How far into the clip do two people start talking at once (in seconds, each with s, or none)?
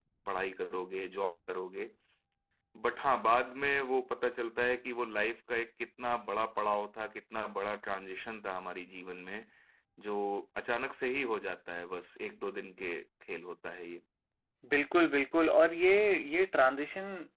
none